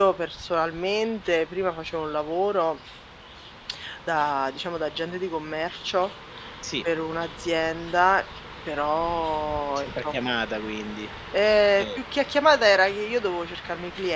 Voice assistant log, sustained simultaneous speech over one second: none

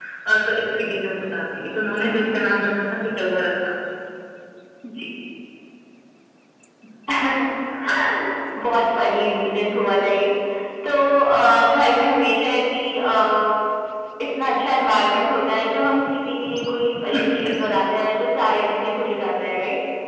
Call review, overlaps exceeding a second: none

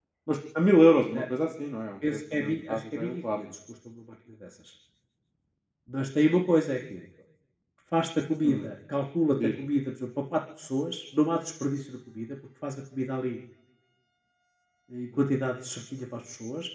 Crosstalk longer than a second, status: present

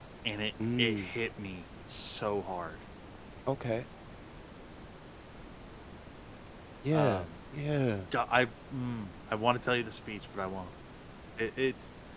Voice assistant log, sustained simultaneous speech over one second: none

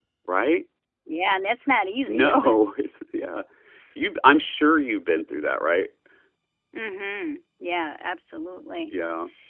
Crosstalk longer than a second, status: none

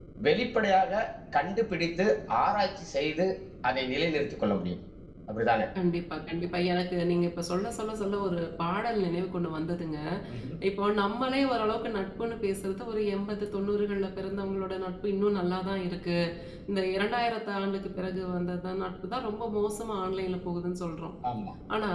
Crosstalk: none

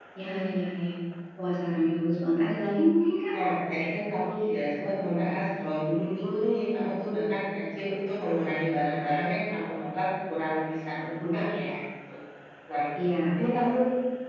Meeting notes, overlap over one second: none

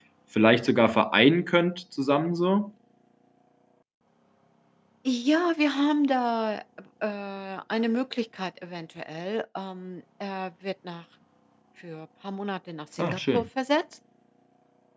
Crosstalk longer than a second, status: none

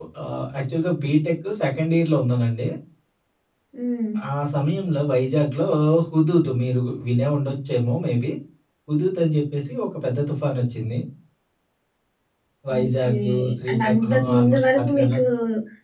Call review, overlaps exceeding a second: present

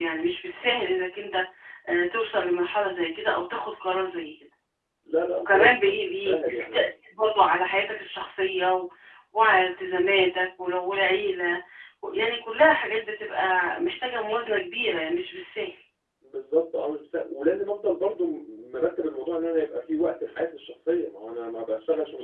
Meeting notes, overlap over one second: present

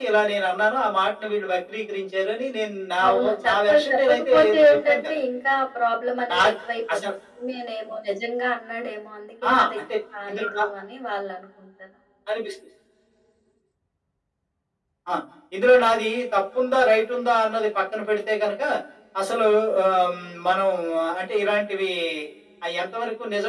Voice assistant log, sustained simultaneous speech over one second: present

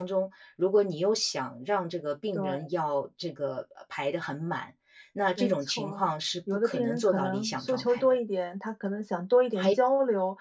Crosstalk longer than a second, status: present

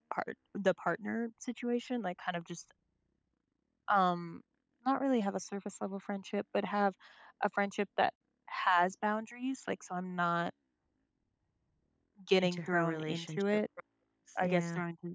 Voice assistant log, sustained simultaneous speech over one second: present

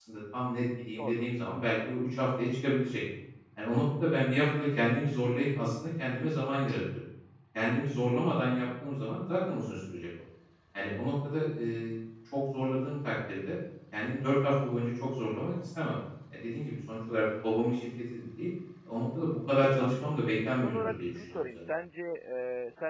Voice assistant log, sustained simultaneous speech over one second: present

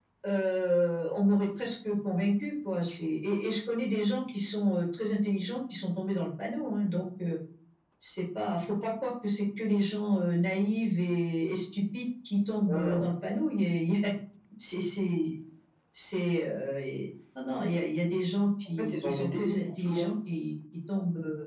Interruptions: present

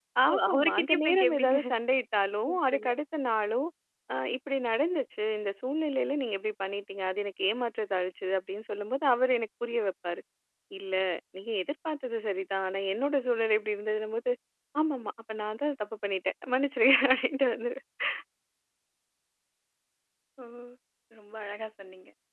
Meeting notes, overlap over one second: present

